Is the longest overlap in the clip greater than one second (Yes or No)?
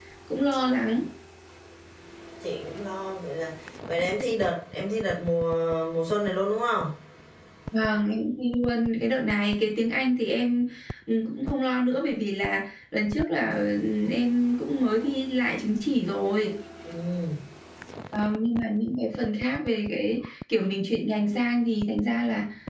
No